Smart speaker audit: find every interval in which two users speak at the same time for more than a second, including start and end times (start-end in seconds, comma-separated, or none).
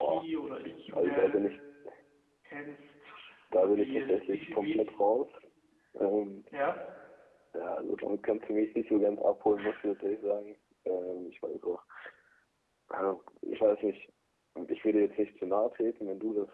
3.6-4.8